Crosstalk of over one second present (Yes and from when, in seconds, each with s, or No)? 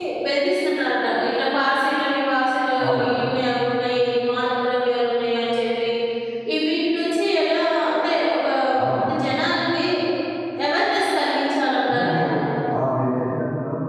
No